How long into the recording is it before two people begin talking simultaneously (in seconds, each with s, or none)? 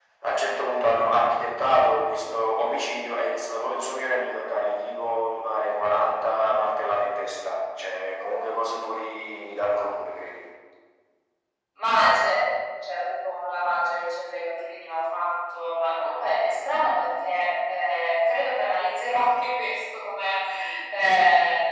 none